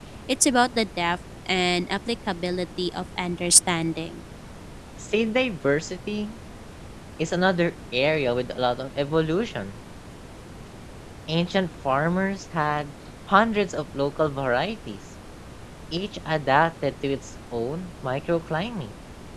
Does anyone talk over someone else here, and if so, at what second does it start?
none

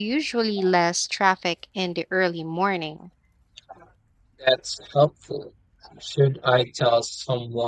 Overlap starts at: none

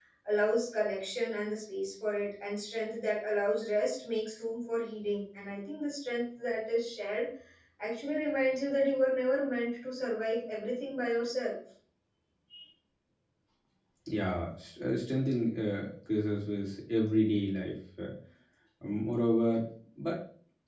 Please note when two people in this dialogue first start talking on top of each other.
none

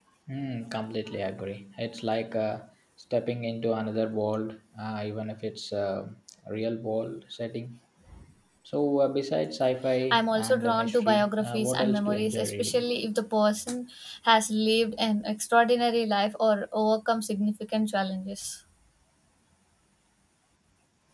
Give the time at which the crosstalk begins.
10 s

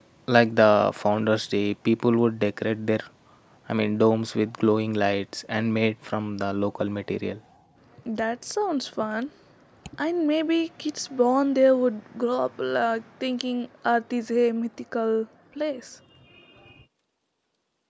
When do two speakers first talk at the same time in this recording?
none

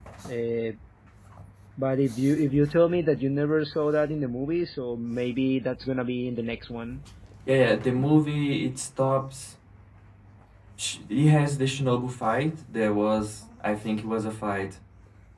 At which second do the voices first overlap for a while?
none

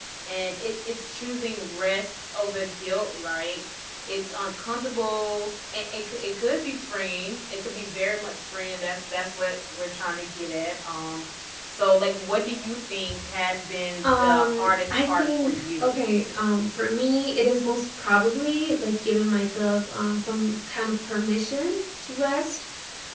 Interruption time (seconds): 14 s

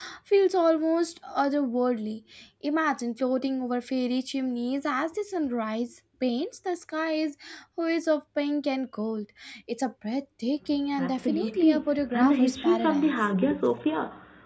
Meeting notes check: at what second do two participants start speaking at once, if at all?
11 s

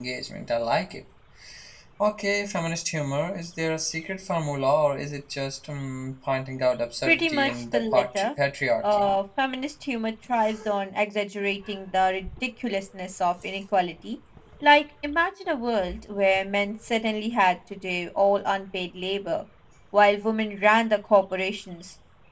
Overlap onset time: 7 s

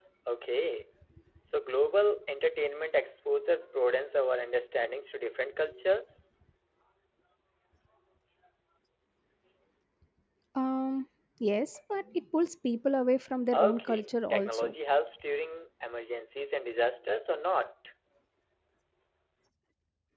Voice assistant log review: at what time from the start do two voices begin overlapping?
14 s

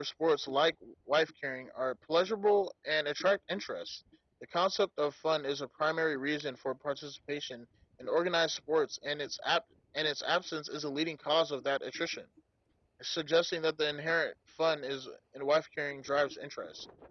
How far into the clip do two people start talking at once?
none

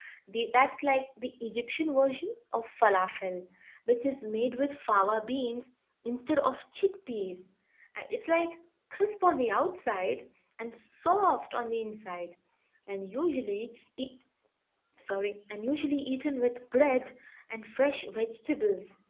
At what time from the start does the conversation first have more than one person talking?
none

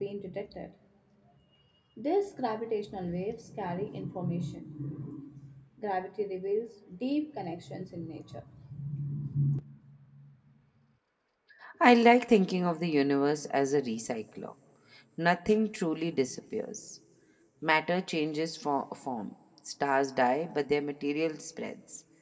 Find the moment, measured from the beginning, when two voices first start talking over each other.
none

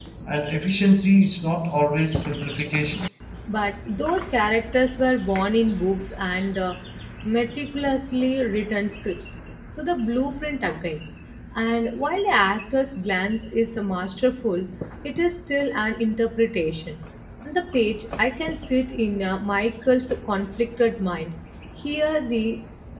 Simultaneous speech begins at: none

